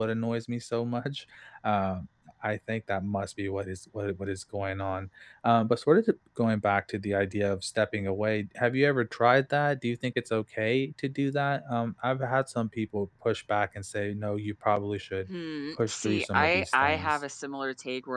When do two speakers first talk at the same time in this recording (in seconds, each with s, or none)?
15.9 s